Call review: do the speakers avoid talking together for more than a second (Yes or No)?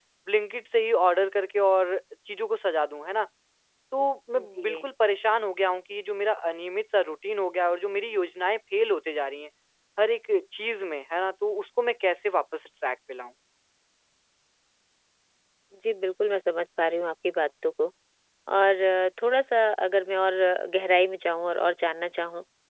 Yes